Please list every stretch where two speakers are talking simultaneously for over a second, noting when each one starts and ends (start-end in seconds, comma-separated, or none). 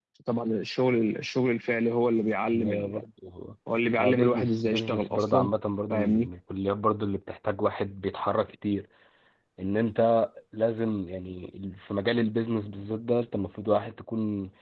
4.0-5.5